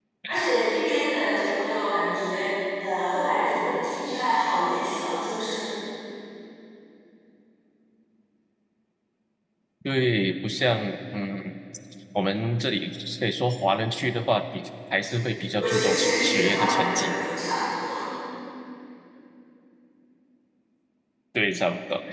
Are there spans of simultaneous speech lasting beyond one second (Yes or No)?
Yes